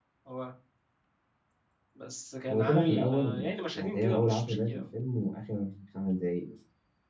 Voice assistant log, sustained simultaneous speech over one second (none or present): present